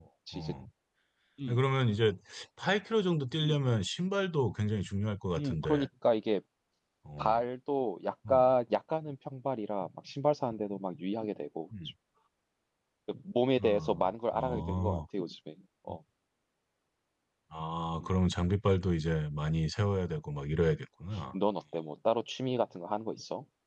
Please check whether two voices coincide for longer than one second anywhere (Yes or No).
Yes